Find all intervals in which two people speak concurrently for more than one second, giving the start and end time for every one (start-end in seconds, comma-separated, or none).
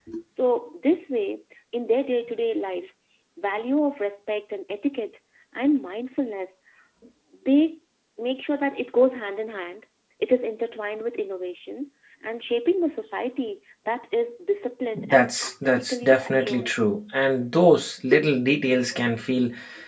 14.9-16.7